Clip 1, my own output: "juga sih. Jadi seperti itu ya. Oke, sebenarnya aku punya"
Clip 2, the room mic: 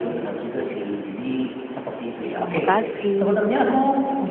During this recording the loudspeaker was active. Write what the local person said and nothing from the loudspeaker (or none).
Nah, makasih.